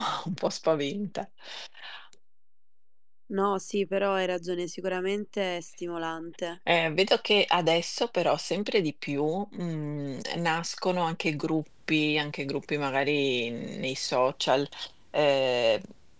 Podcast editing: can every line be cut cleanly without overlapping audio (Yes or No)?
Yes